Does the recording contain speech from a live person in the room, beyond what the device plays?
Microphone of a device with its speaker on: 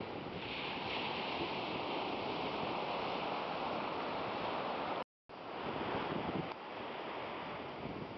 No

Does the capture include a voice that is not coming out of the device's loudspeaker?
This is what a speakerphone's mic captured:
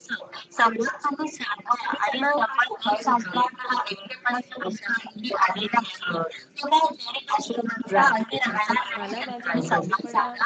Yes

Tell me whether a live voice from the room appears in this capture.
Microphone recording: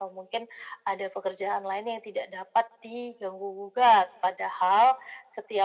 No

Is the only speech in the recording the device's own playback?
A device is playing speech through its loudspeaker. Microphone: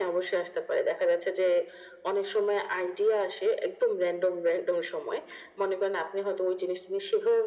Yes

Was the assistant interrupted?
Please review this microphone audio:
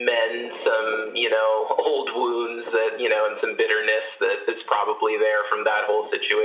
No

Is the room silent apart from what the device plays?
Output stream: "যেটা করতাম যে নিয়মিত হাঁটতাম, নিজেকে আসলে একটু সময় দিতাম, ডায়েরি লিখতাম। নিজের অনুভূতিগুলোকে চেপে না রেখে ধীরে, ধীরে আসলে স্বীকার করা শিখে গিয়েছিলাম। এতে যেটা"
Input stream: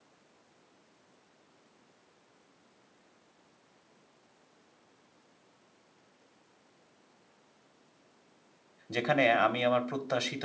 No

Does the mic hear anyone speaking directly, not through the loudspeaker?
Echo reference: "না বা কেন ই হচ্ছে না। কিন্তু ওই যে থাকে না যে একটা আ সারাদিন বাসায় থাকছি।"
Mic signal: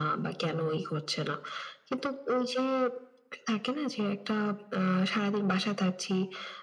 No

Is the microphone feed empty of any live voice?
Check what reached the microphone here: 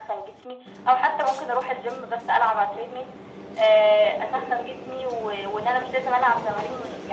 Yes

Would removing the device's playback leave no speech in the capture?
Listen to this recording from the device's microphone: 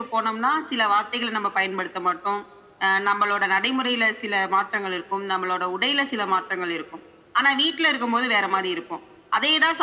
Yes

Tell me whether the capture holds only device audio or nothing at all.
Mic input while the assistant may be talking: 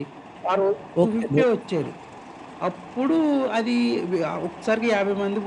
No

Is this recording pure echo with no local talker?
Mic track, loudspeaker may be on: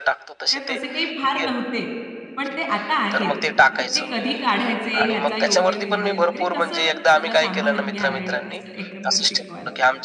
No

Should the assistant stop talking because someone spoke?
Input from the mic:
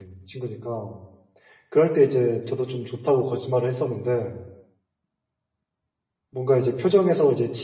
Yes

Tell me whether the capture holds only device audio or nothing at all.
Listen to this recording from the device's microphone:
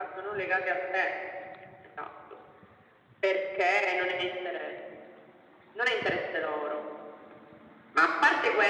Yes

